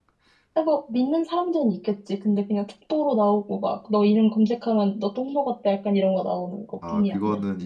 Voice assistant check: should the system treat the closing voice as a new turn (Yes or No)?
Yes